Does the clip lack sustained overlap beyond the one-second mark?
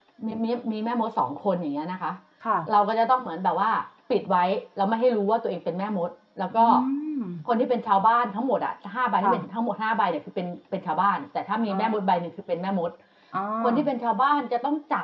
Yes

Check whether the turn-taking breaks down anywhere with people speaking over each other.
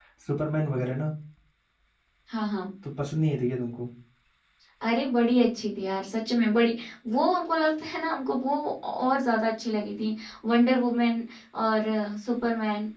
No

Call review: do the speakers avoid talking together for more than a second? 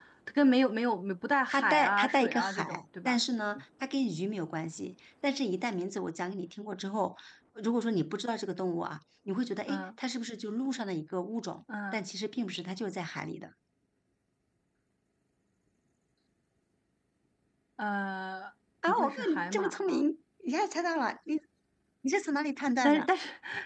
No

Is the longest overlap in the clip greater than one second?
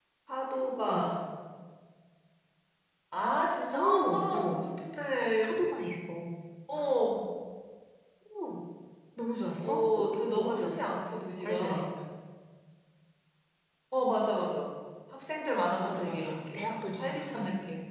Yes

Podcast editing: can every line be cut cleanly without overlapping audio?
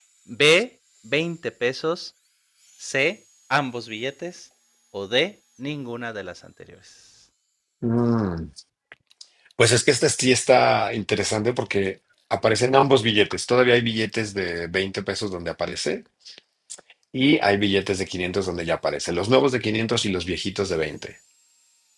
Yes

